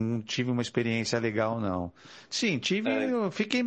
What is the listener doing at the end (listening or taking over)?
listening